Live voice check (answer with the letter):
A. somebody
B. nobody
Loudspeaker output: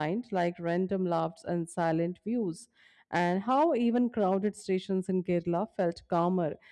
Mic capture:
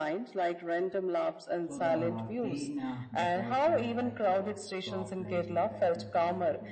A